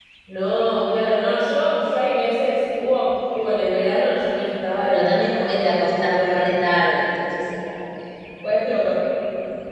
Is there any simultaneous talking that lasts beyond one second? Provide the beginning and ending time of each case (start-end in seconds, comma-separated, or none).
4.9-6.8